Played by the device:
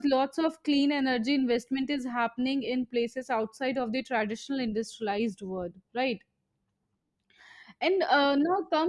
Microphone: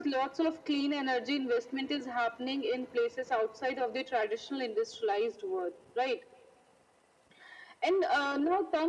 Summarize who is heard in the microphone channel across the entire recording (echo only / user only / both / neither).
echo only